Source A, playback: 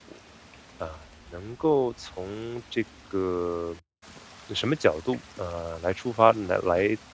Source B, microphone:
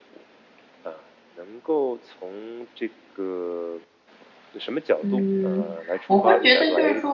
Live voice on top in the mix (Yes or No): Yes